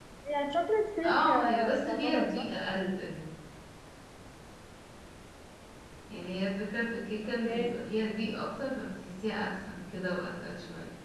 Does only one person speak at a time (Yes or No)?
No